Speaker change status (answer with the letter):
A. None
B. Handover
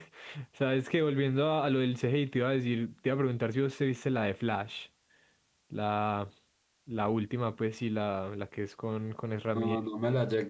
B